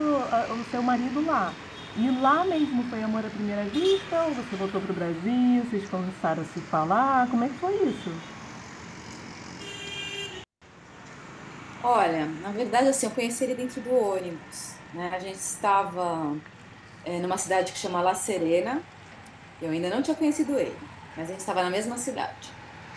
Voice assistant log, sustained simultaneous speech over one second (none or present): none